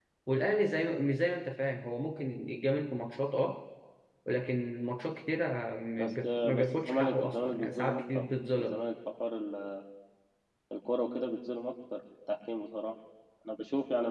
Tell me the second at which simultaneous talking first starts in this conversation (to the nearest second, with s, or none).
6 s